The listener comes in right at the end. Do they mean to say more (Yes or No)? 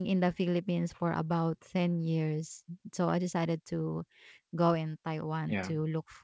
No